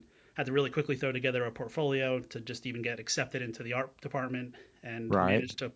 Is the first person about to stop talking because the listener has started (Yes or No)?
No